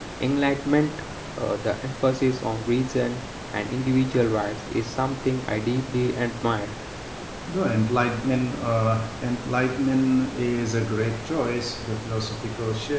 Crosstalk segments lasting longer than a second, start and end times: none

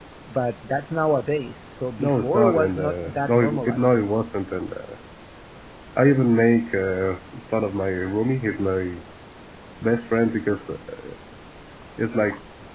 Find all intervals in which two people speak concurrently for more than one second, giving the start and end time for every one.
2.0-4.0

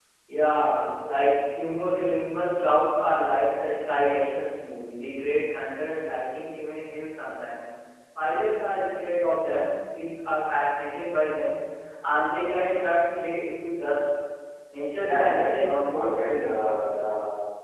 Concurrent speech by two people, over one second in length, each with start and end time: 15.0-16.7

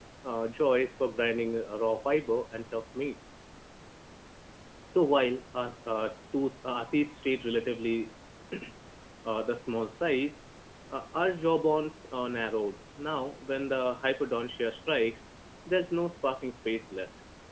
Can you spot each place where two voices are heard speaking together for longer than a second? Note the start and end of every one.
none

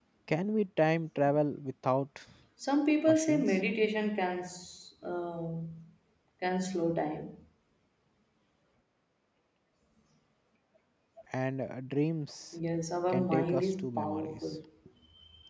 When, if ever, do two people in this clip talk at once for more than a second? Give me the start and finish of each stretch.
13.1-14.4

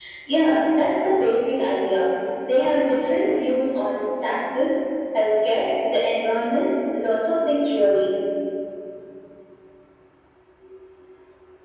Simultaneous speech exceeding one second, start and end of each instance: none

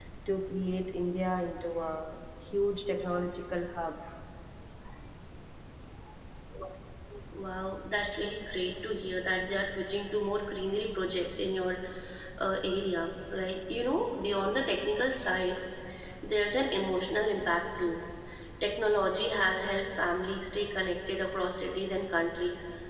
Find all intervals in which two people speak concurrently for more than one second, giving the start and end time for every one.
none

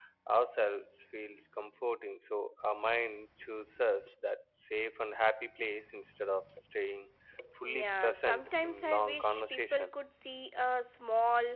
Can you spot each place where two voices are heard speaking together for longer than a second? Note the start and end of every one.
7.6-9.9

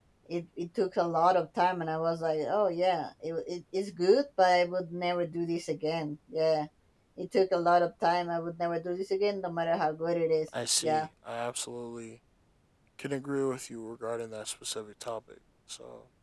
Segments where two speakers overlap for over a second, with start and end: none

